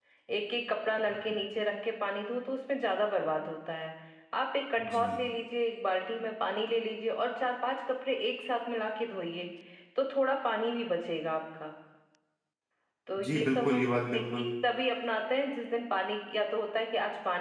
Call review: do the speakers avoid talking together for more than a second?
No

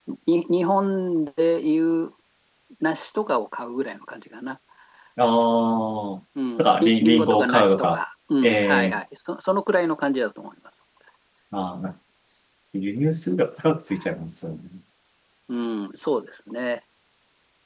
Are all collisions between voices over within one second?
No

